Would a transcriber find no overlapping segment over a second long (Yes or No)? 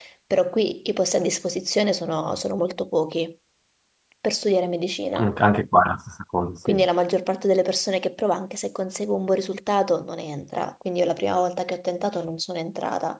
Yes